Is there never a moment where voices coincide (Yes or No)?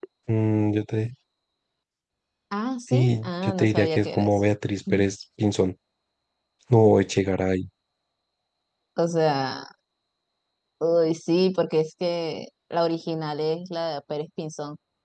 No